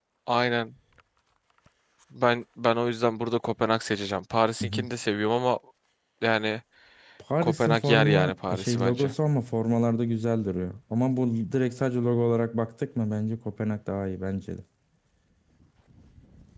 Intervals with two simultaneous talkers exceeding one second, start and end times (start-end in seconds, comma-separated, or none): 7.4-9.1